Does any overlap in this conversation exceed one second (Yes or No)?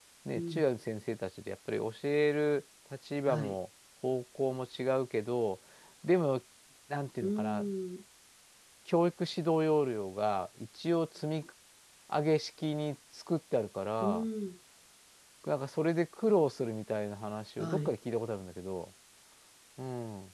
No